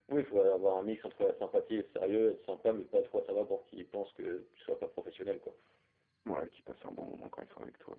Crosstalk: none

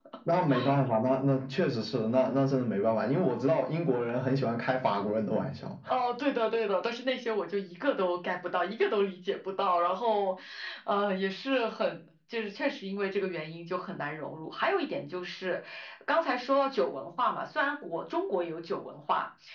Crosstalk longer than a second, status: none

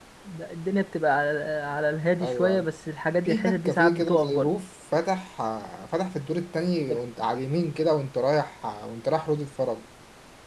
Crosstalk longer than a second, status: present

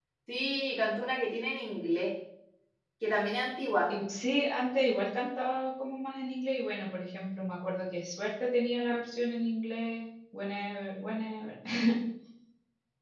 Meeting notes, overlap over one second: none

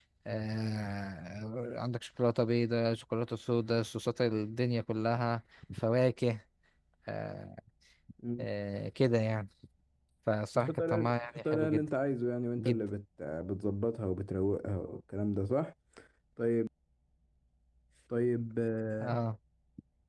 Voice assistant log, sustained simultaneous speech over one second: present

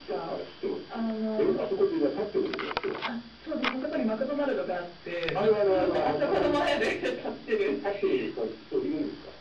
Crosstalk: present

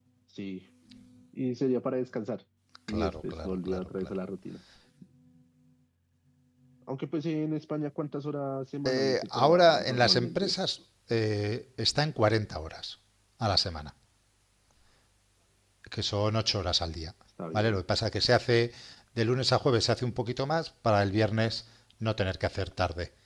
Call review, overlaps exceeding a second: present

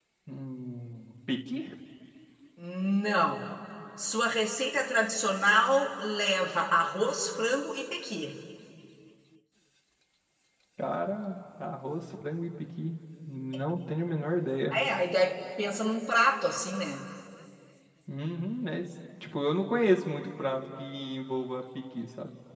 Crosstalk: none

